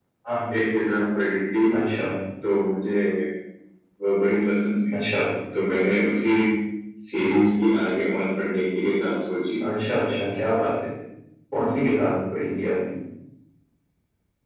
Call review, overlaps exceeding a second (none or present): none